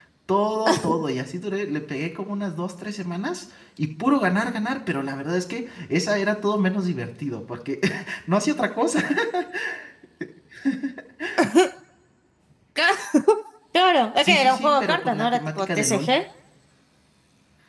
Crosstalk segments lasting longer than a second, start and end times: 14.2-16.1

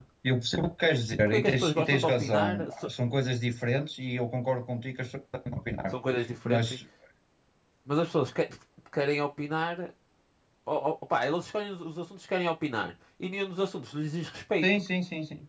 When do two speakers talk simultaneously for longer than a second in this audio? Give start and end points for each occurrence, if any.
1.3-2.9

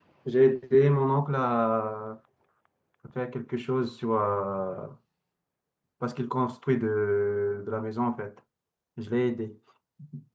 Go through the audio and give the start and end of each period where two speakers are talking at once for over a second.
none

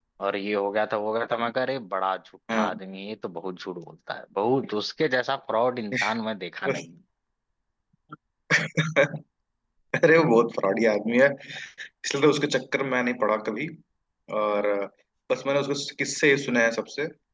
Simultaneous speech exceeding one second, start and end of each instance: none

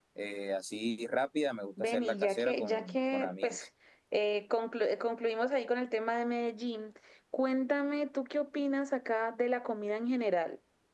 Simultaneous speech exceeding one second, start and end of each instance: 1.8-3.6

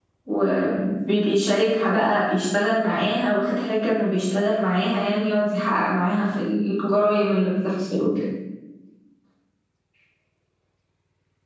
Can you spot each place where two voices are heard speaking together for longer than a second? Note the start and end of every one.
none

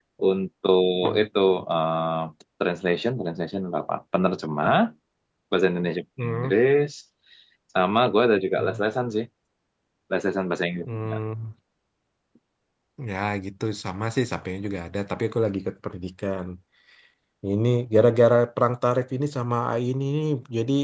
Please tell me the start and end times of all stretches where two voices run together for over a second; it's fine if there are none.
none

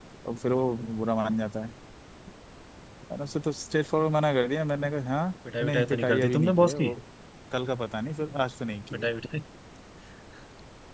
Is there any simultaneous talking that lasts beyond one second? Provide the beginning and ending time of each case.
5.6-6.9

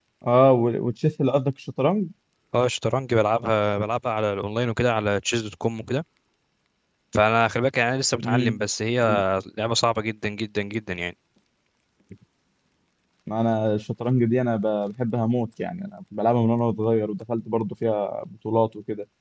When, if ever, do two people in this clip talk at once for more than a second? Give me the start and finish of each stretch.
none

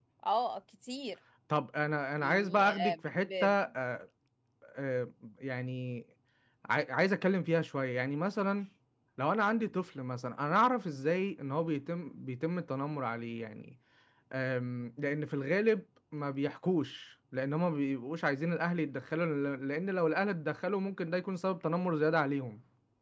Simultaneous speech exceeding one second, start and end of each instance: 2.2-3.5

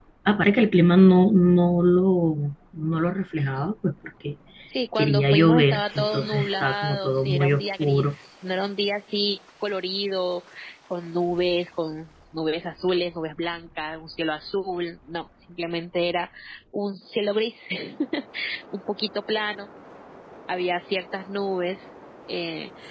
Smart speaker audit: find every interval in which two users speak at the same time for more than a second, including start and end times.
5.0-8.0

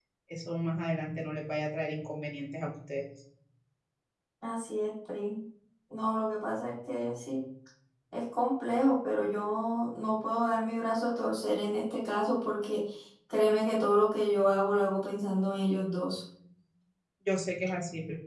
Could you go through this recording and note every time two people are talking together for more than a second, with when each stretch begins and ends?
none

